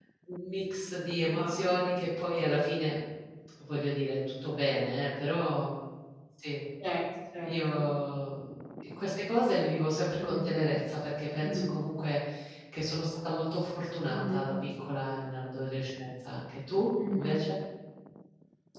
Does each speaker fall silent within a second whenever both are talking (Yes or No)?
Yes